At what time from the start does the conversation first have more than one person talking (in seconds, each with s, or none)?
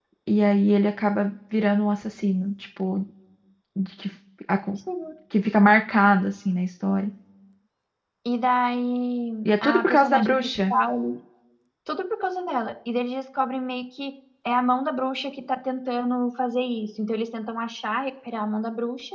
9.4 s